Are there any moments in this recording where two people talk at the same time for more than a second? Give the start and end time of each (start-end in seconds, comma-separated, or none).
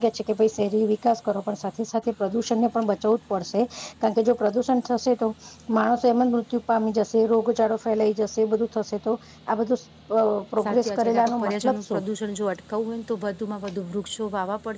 10.7-12.0